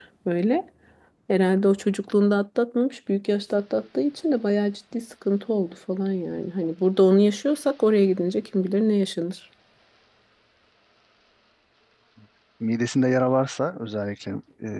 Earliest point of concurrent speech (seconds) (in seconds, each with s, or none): none